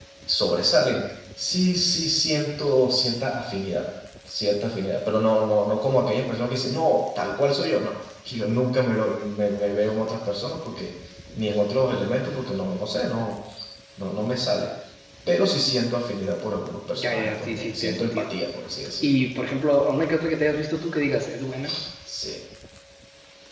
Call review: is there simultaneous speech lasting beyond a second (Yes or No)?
Yes